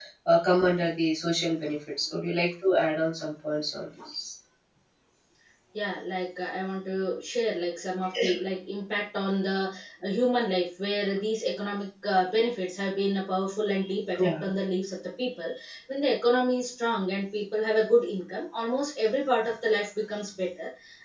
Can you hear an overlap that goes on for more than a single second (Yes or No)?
No